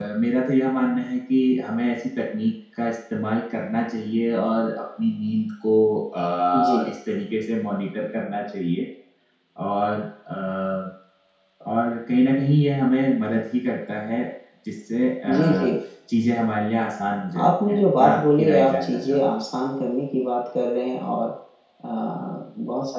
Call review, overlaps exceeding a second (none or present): present